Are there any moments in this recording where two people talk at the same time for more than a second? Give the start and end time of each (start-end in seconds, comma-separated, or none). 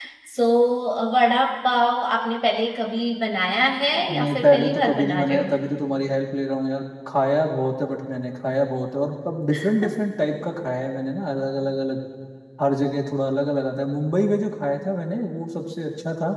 4.1-5.5